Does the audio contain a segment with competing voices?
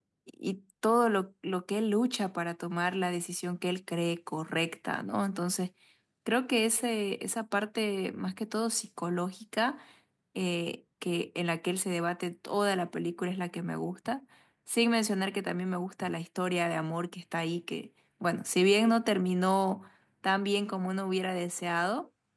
No

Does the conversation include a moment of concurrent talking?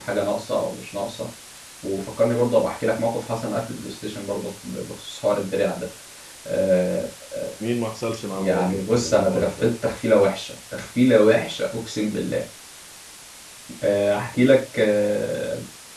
Yes, from 8.3 s

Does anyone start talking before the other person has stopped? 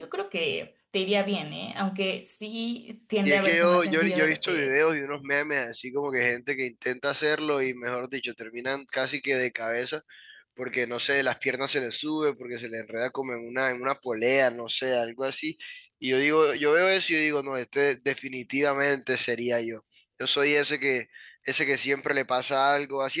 Yes, from 3.2 s

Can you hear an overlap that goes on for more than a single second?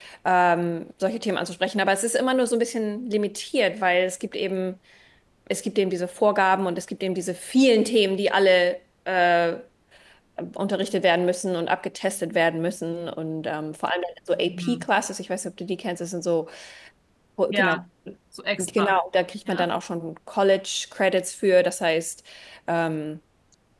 No

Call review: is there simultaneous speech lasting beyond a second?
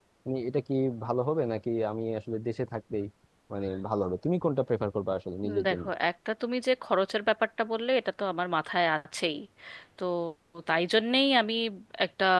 No

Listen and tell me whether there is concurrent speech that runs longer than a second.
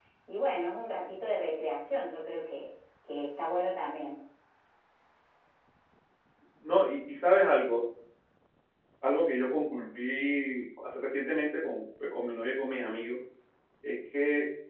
No

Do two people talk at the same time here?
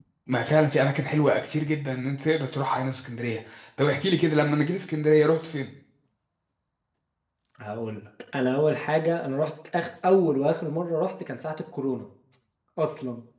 No

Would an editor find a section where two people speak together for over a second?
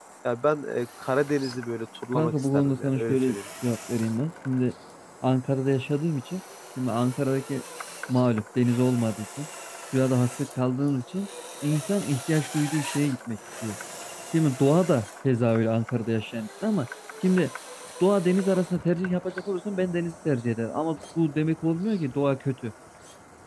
Yes, from 2.1 s

